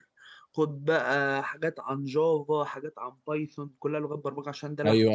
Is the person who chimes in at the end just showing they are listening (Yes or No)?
No